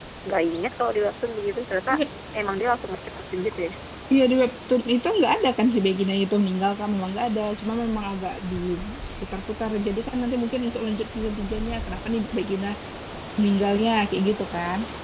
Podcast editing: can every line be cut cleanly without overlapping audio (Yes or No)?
Yes